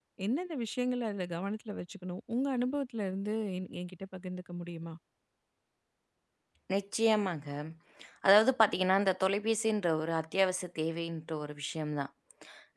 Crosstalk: none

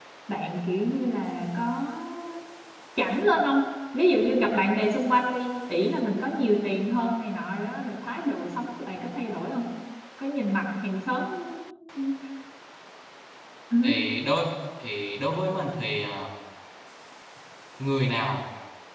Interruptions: none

